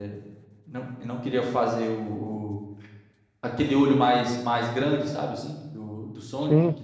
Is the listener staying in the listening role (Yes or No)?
Yes